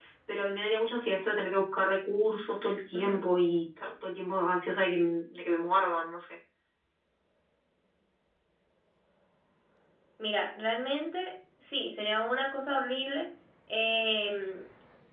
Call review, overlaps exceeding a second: none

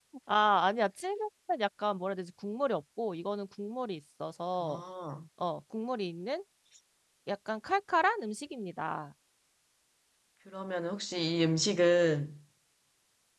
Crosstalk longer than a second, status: none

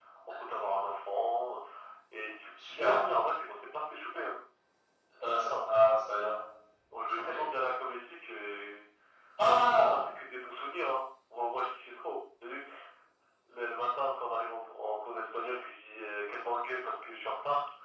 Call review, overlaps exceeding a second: none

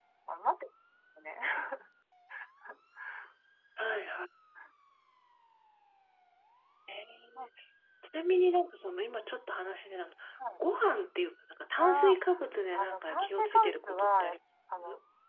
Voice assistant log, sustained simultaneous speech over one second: present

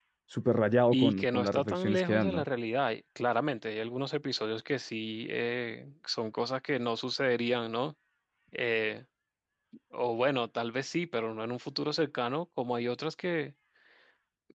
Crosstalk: present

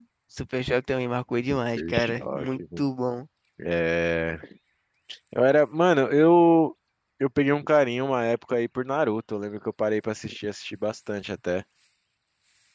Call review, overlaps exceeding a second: present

